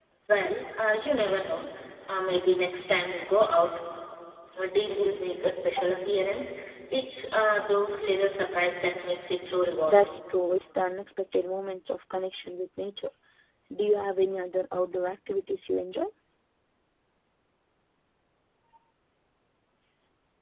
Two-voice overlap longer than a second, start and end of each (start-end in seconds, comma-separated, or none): none